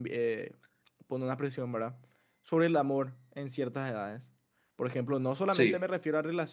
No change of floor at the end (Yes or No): Yes